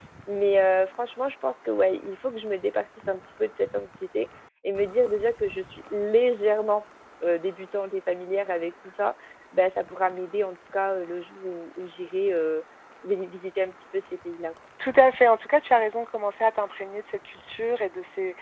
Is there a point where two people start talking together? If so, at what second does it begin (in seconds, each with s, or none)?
none